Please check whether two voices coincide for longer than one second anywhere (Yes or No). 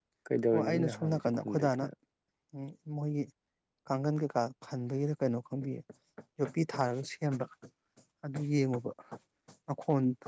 Yes